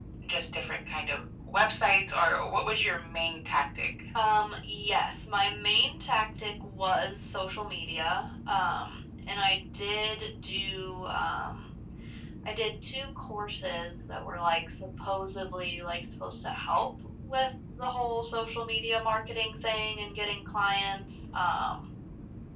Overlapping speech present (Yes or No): No